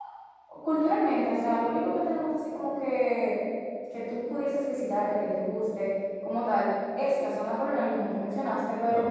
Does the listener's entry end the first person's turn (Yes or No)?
No